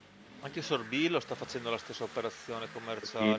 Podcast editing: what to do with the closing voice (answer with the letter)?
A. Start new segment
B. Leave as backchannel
A